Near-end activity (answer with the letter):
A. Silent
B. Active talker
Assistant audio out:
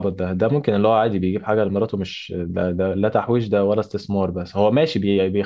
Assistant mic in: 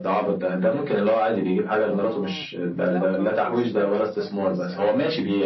B